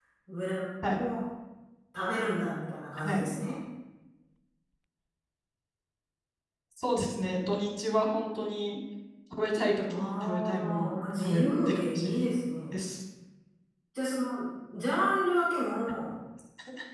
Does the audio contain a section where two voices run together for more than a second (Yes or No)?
Yes